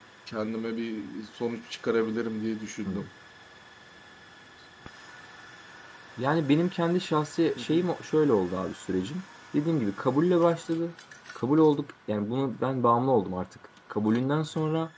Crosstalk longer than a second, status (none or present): none